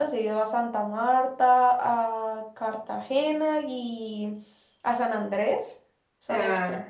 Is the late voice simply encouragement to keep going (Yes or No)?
Yes